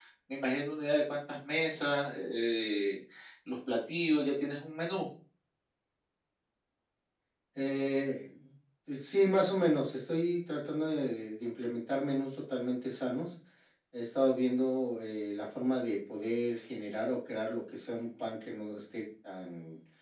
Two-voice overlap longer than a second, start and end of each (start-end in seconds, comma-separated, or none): none